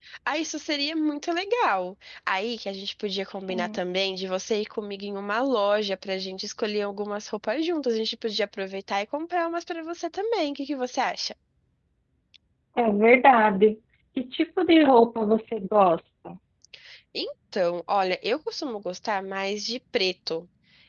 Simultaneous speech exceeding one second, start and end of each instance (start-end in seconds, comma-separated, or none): none